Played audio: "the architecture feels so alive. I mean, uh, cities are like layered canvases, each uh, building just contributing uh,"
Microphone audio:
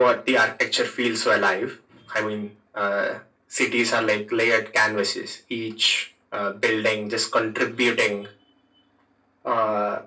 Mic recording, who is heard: echo only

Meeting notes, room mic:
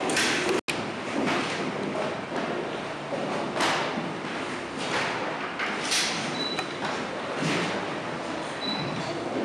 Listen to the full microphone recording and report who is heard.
neither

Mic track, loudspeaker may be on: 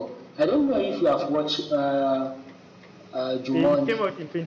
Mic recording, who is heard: both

